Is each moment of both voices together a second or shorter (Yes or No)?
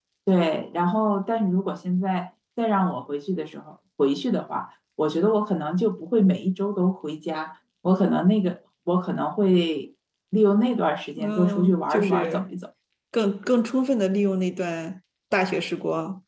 No